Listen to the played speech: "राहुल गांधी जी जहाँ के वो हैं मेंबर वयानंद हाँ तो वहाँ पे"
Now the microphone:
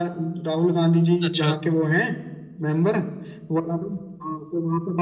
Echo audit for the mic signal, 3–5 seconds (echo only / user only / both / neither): echo only